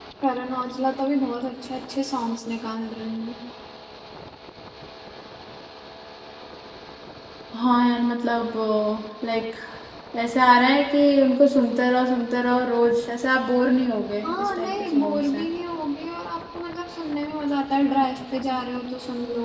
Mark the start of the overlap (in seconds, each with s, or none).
14.2 s